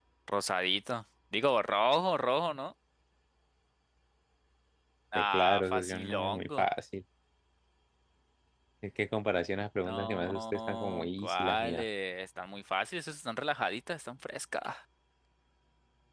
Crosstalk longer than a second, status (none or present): present